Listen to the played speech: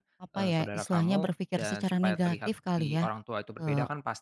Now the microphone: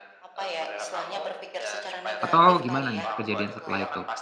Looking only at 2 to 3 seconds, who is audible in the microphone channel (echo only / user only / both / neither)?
both